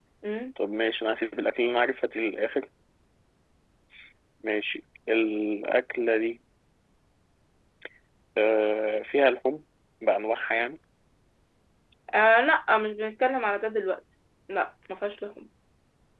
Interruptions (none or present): none